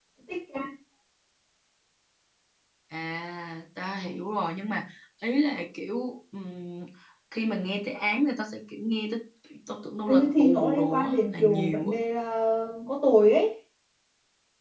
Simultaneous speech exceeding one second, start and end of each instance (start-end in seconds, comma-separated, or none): 10.1-11.9